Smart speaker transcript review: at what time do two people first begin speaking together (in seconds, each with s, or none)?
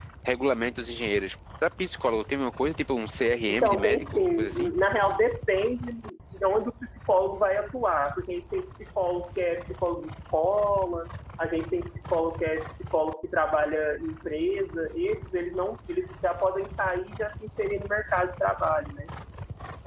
3.5 s